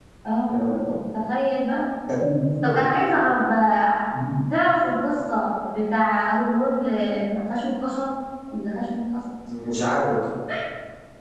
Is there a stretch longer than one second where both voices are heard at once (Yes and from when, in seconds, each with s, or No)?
No